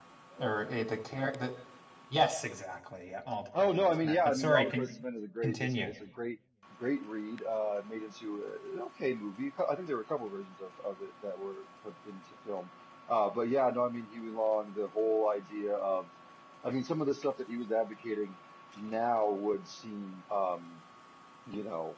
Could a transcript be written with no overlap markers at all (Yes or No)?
No